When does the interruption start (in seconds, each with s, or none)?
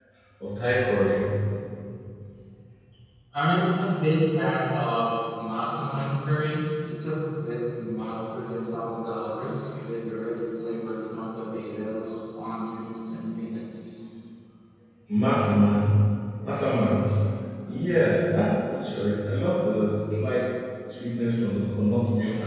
none